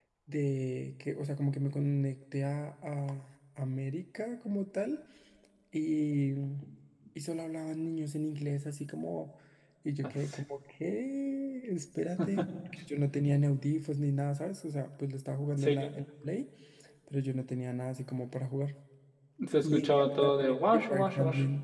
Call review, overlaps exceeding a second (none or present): present